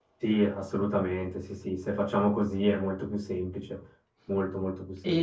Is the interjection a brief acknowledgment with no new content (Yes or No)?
No